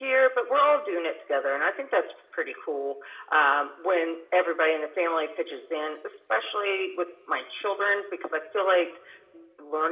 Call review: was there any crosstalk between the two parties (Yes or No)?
No